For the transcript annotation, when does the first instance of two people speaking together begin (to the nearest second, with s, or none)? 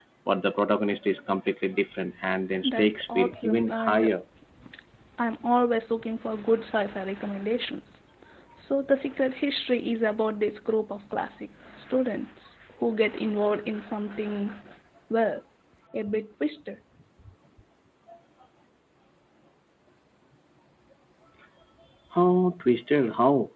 3 s